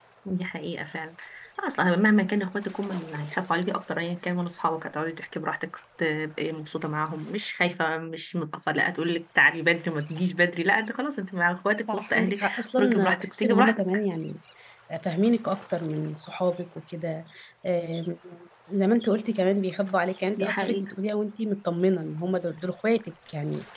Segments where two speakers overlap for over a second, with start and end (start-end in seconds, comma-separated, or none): 11.9-13.8